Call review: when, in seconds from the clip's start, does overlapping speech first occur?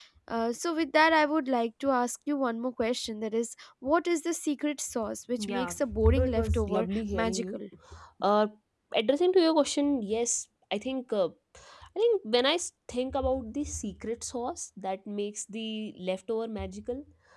5 s

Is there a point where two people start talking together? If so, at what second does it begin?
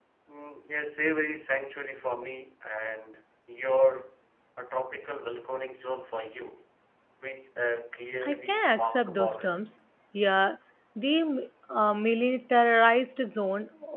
8 s

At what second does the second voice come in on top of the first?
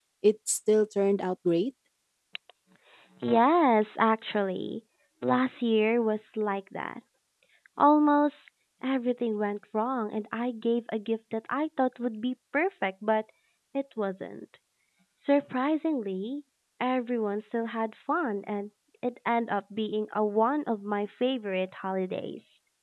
none

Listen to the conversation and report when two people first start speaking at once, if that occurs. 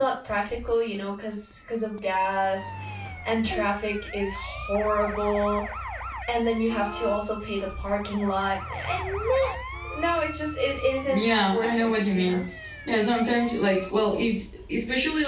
11 s

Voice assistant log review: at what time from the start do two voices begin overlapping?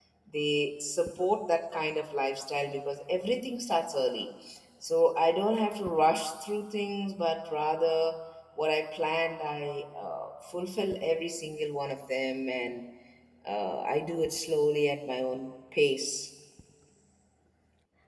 none

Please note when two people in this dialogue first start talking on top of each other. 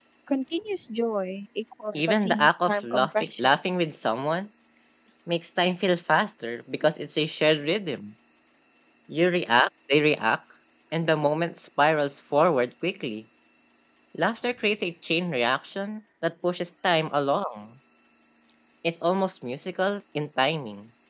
2 s

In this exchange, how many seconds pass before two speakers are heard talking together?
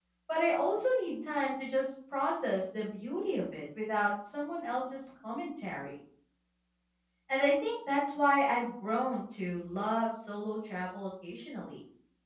none

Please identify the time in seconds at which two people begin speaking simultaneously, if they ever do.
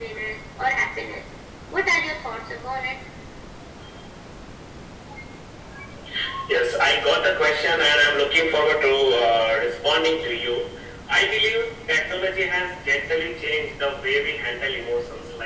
none

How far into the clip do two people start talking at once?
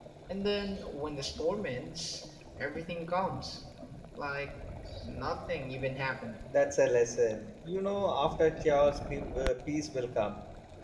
none

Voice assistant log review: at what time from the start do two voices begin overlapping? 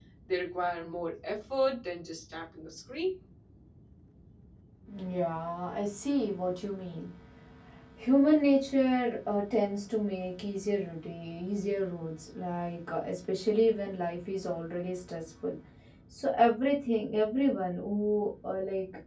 none

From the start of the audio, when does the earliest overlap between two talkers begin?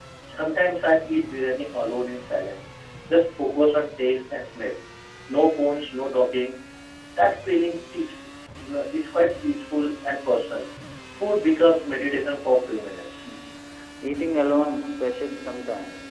none

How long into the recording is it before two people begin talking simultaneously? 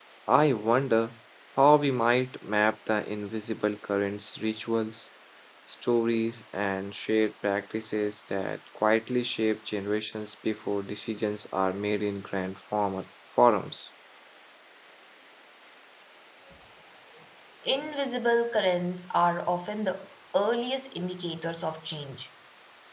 none

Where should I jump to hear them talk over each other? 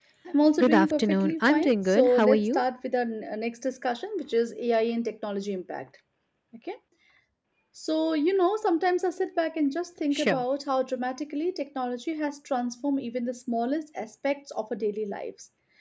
1 s

